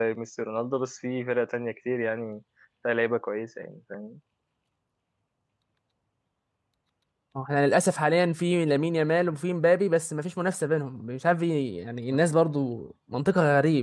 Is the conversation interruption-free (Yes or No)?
Yes